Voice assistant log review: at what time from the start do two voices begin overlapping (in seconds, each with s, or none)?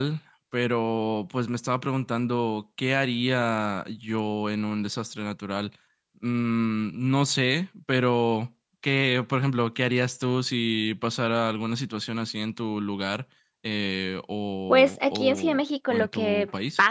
14.7 s